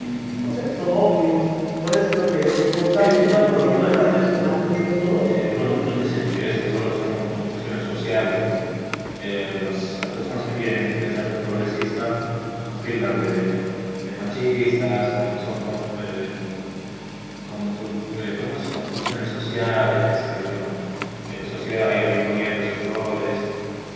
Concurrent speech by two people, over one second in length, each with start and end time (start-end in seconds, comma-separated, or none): 2.9-4.5